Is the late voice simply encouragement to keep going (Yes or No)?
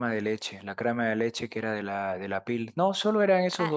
No